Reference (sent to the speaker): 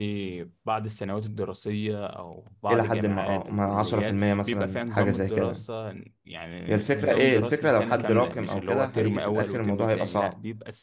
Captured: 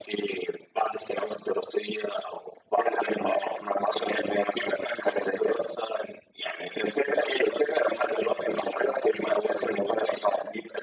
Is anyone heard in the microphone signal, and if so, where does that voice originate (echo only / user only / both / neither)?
echo only